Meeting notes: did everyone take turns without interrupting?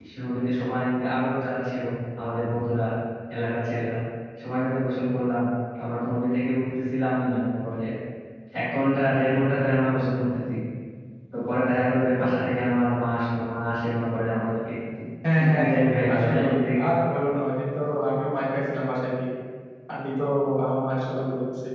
No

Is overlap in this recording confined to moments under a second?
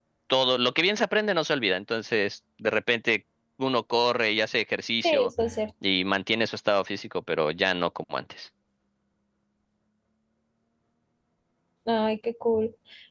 Yes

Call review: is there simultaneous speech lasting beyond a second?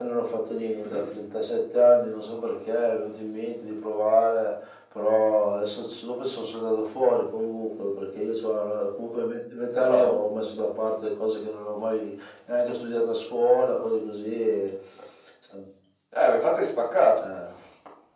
No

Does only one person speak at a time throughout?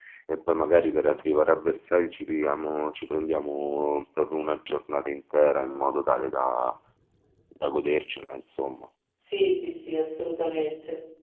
Yes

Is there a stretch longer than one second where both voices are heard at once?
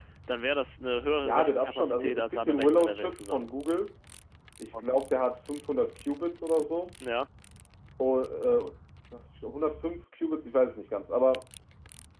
Yes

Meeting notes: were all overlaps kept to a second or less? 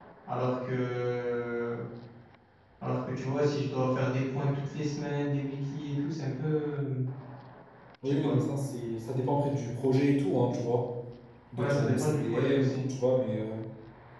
No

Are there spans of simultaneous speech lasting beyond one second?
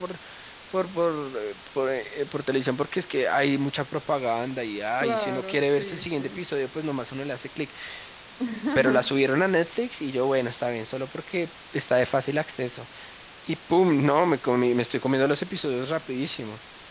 Yes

